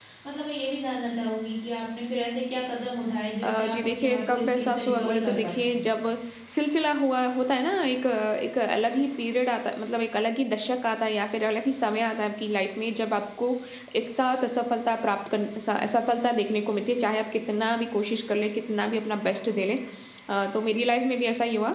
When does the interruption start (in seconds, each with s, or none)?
3.4 s